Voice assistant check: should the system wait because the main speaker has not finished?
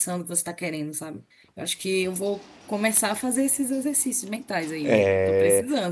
No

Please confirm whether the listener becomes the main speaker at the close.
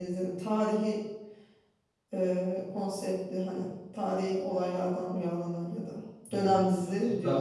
Yes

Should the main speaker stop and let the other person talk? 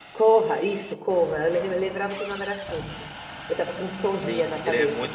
Yes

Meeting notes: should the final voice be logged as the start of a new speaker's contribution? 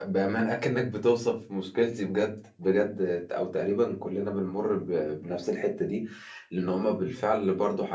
No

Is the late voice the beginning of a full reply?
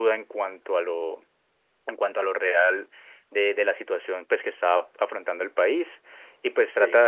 No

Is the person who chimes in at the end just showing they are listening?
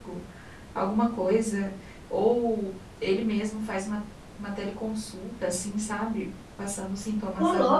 No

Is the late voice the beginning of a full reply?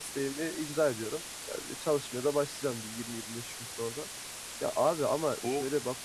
No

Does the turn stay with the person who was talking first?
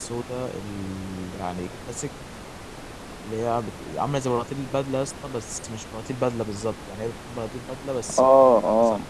No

